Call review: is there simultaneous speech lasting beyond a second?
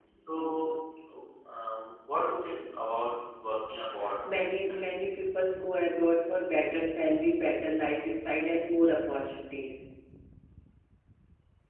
No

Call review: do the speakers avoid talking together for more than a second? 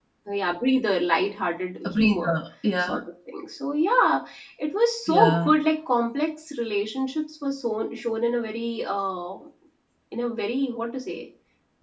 Yes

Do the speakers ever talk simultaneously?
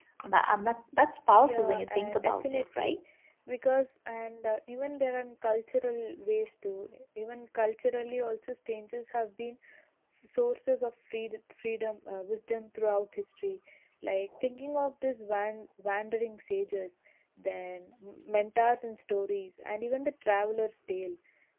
Yes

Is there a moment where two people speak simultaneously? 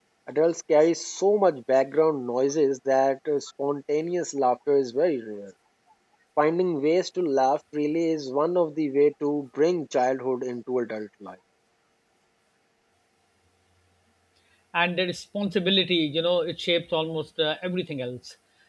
No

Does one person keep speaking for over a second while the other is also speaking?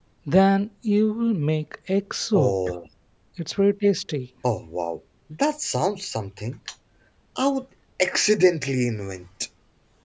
No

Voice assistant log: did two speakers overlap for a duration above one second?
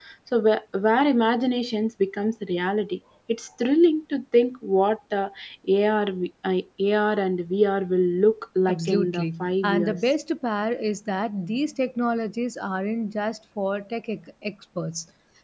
Yes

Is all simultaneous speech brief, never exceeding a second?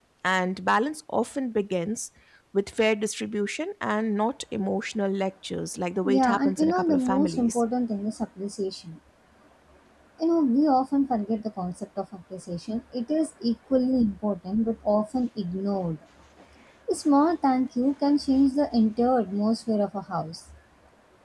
No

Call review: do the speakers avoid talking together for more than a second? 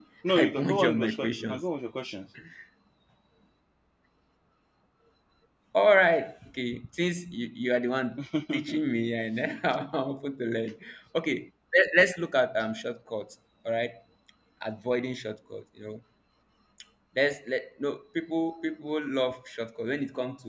No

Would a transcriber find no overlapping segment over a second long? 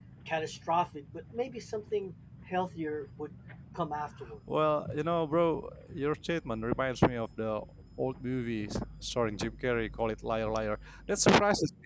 Yes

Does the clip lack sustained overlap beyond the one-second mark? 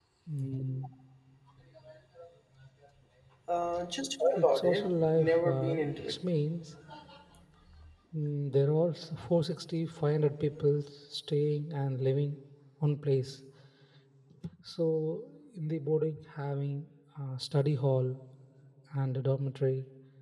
No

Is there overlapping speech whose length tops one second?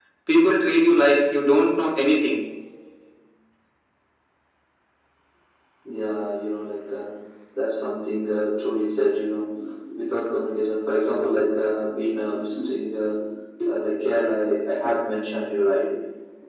No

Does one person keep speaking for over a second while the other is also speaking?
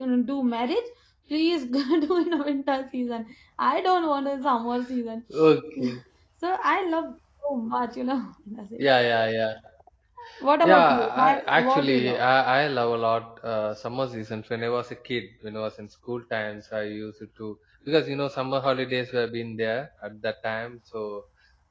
Yes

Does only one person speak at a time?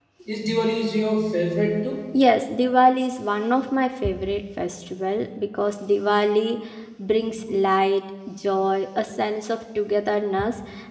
Yes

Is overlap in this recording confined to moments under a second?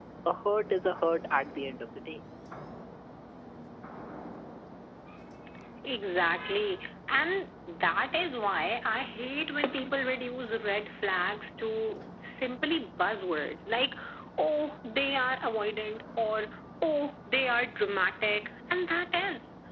Yes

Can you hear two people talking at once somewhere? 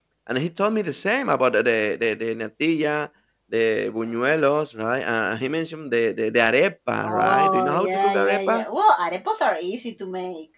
Yes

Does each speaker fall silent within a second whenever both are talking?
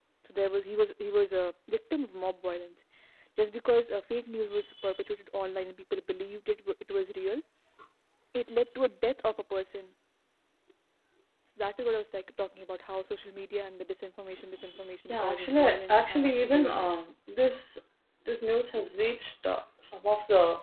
No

